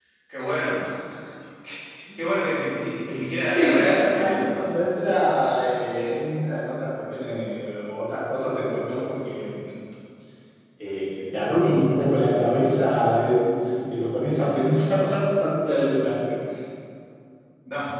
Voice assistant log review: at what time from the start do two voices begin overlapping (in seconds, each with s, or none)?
3.2 s